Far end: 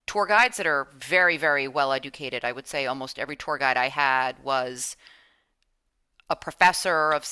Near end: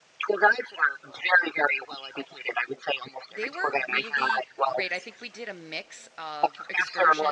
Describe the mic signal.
both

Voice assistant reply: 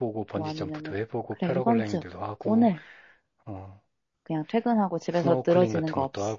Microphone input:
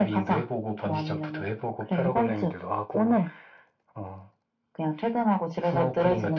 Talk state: echo only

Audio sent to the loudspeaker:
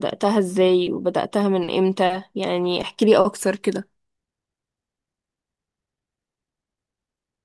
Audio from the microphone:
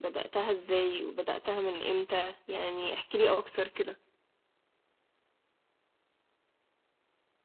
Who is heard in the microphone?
echo only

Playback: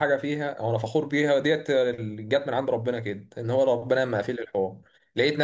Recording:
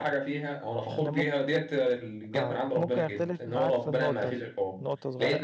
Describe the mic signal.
both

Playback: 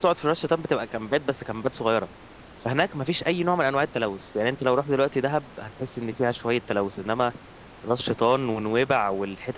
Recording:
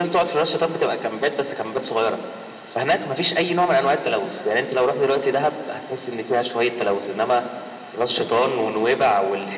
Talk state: echo only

